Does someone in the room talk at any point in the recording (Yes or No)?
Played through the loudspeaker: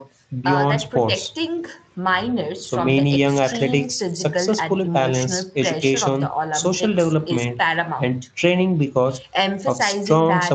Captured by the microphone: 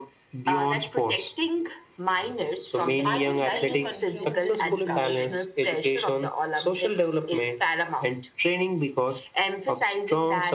Yes